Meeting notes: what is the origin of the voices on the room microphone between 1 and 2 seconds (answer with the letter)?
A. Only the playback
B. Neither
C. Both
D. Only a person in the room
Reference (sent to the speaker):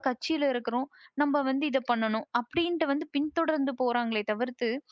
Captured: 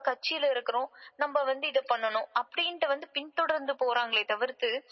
A